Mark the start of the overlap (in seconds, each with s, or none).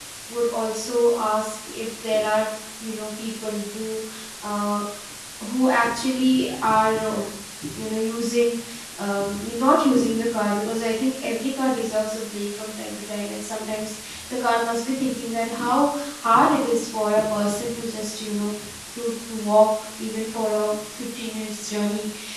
none